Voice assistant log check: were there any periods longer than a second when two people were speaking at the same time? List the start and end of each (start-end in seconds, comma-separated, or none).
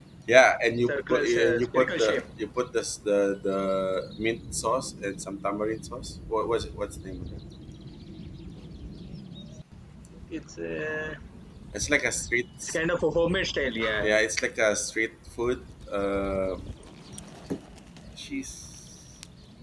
0.9-2.2